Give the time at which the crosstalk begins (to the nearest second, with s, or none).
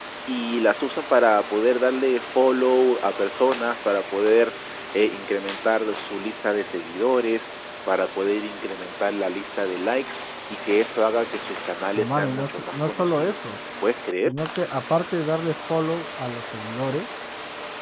12 s